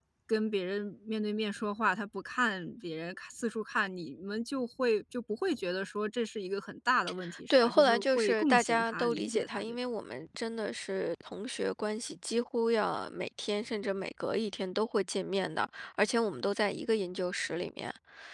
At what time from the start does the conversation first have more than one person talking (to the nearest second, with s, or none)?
8 s